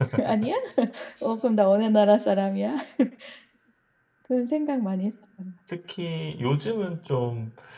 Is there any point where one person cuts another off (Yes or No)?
No